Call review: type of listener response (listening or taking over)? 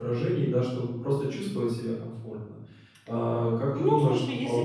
taking over